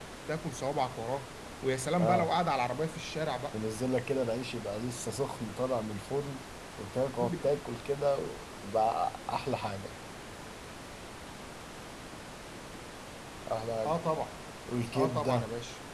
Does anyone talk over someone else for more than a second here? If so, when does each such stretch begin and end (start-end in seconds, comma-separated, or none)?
none